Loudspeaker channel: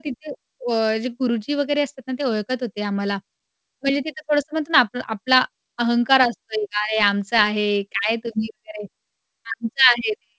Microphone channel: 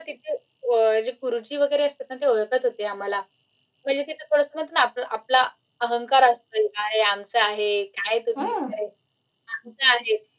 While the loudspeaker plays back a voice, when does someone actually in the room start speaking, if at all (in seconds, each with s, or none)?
8.4 s